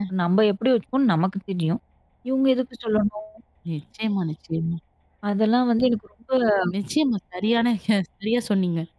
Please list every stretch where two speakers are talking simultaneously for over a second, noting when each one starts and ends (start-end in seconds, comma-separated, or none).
none